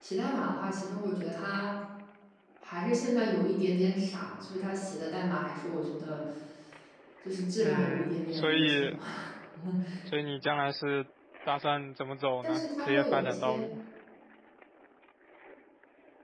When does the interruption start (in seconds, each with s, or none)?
7.6 s